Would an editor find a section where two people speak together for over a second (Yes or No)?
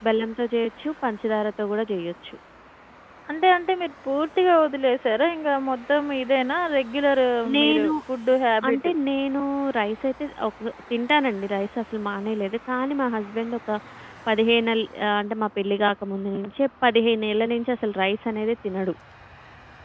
No